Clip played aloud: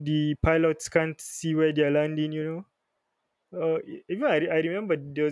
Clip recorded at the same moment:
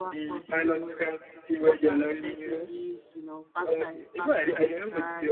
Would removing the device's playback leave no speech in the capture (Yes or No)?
No